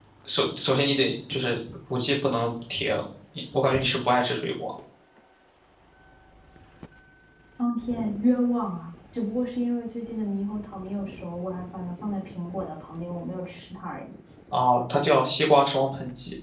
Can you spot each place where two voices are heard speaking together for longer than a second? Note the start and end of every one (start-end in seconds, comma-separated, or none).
none